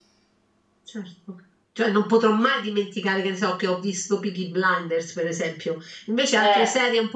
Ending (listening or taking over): listening